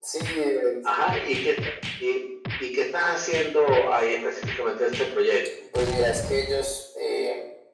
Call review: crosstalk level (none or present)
none